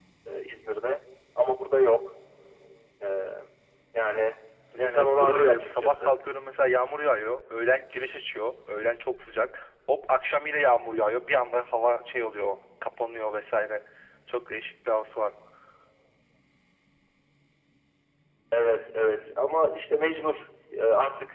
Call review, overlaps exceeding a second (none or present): present